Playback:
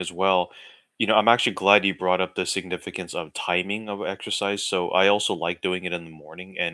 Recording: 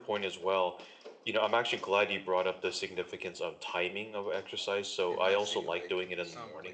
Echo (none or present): present